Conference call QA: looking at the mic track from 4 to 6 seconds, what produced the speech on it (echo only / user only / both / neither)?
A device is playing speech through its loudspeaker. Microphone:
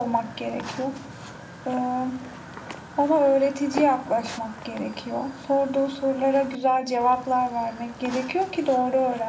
echo only